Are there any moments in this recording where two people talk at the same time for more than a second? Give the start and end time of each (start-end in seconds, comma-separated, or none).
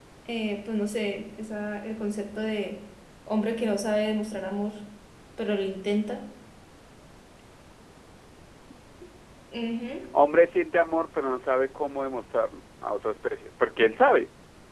none